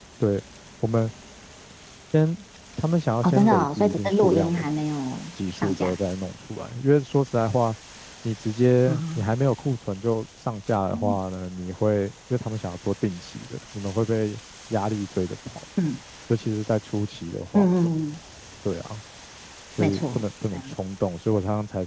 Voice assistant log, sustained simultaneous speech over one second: present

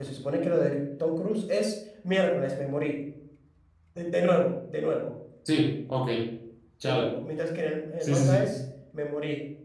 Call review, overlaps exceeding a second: none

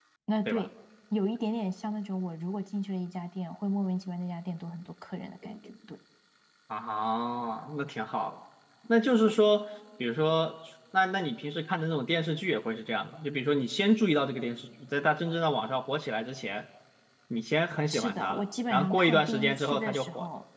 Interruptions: present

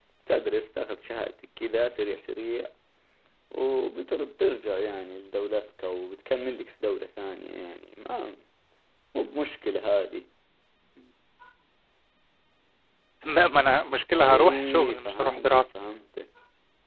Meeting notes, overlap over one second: present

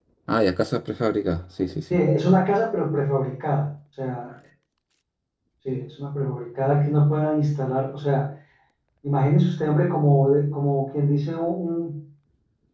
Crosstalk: none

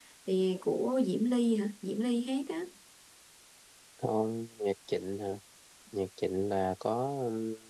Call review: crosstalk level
none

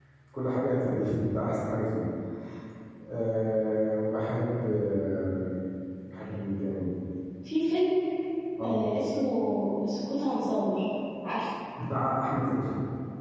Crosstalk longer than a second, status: none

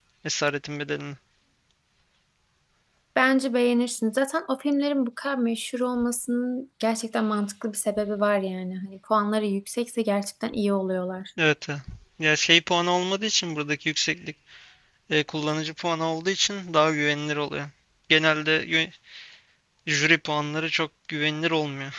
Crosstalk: none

